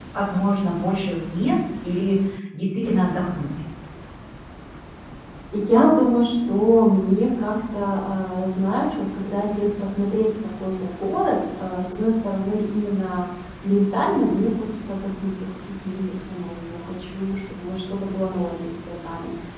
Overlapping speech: No

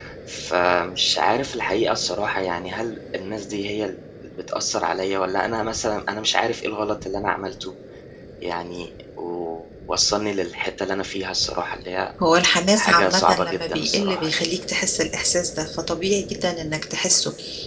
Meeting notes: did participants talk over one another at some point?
Yes, from 12.7 s

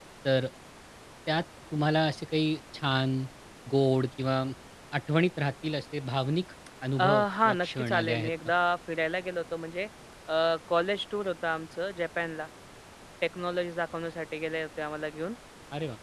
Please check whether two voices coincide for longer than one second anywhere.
Yes, from 7.0 s

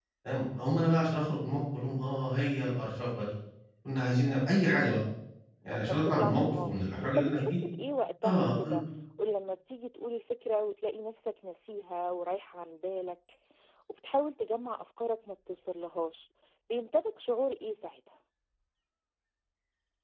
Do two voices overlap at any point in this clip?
Yes, from 5.7 s

